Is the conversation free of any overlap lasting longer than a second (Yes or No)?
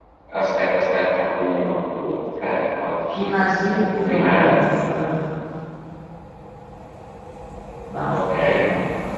No